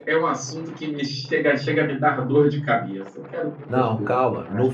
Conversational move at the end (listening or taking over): taking over